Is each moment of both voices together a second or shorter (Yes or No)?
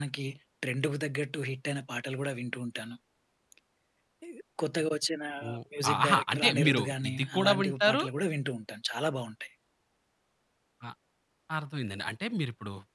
No